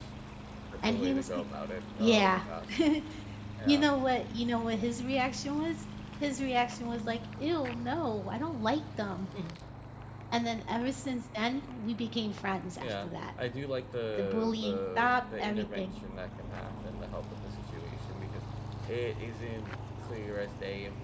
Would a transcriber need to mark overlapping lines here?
Yes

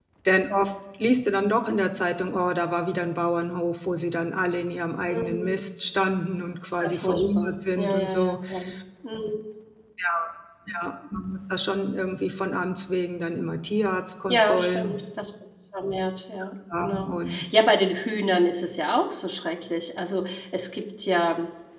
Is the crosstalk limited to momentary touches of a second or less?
No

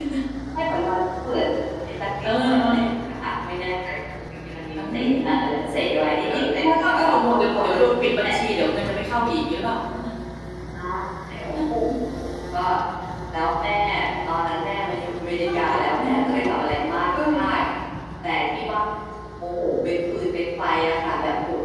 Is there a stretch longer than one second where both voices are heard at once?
Yes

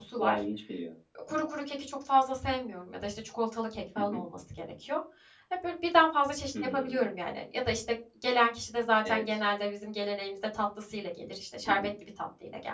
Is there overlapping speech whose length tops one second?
No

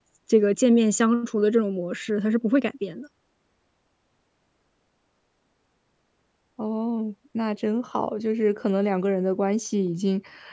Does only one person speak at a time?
Yes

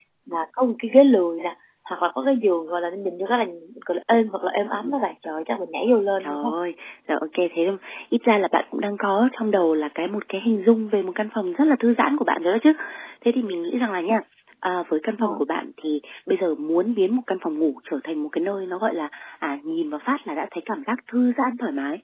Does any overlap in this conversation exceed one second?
No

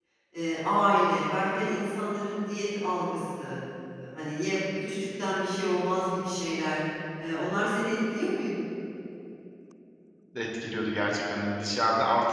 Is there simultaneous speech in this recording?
No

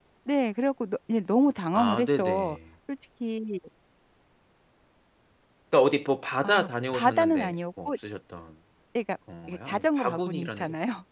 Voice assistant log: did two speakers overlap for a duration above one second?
Yes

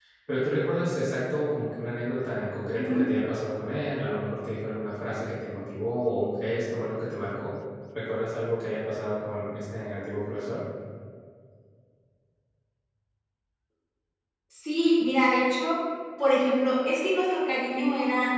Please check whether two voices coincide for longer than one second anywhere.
No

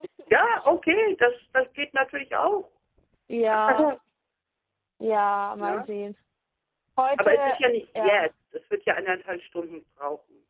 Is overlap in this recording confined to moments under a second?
Yes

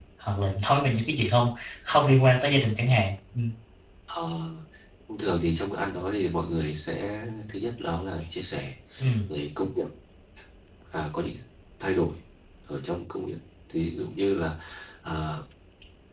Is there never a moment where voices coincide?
Yes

